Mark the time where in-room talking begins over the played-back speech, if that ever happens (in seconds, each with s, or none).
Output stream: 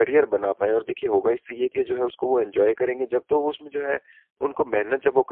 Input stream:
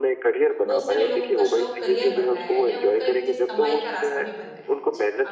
0.7 s